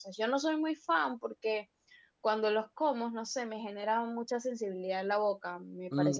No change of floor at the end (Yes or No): No